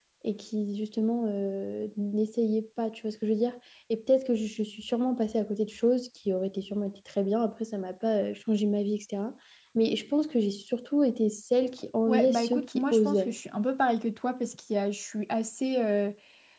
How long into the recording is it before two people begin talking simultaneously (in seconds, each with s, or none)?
12.1 s